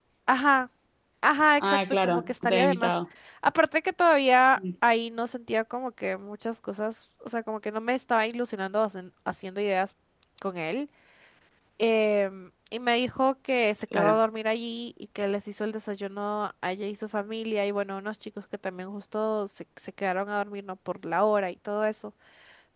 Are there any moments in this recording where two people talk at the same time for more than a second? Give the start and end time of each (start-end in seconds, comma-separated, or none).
1.6-3.0